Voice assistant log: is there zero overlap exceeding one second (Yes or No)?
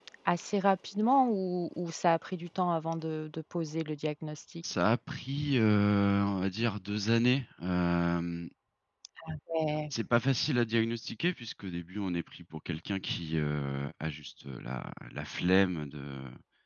Yes